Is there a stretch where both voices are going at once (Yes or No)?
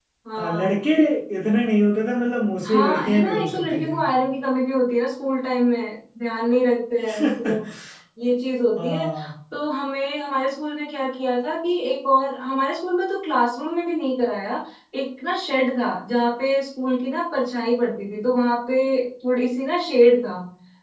Yes